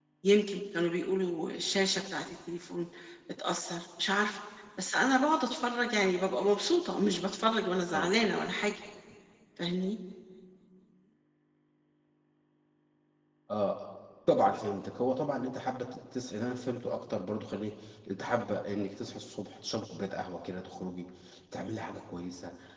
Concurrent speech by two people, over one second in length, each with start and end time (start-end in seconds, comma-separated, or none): none